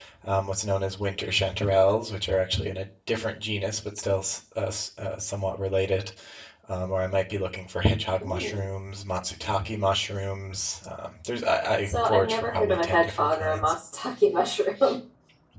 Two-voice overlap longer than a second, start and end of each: 11.8-13.7

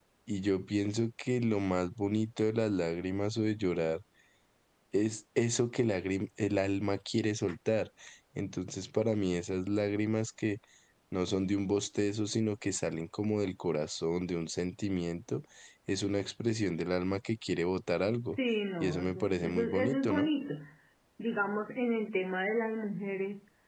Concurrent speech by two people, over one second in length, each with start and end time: 18.8-20.3

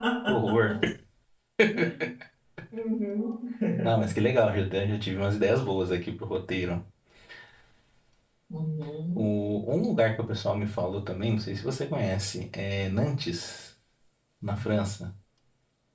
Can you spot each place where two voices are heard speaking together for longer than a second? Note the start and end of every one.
none

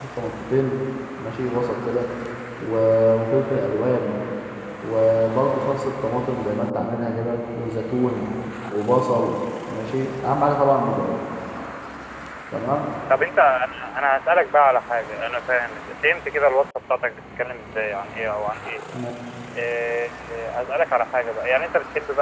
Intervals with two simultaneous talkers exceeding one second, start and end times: none

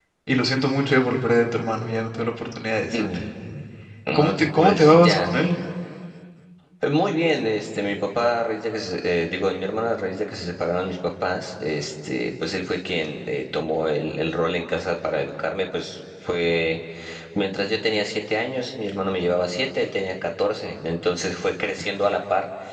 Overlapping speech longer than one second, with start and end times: 4.1-5.4

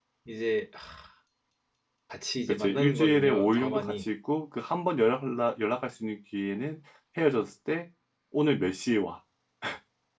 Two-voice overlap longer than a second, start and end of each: 2.5-4.0

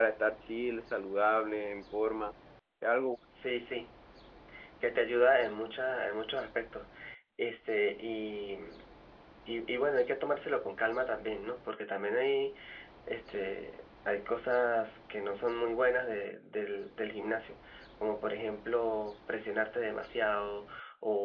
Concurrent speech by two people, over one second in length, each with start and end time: none

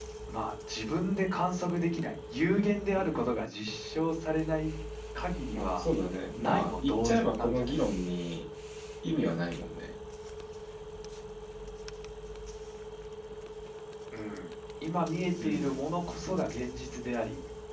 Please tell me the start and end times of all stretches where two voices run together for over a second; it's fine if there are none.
6.4-7.7

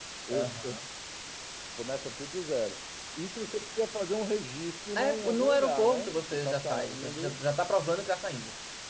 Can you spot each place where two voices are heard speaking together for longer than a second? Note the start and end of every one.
5.0-7.4

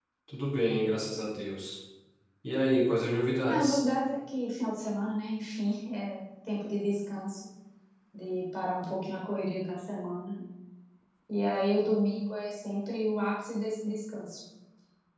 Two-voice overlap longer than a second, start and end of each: none

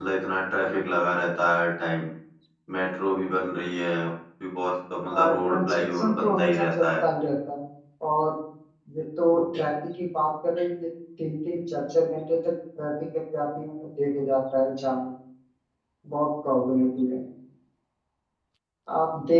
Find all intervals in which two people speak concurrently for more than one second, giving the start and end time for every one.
5.1-6.8

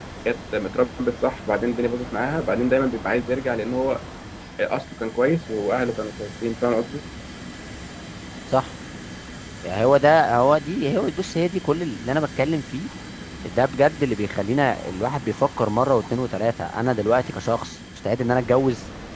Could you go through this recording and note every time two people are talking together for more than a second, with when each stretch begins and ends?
none

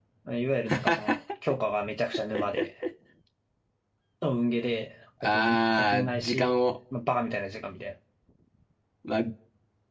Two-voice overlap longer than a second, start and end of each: 5.2-6.5

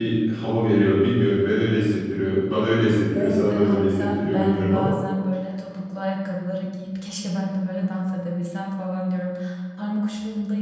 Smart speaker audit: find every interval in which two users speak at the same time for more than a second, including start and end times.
3.2-4.9

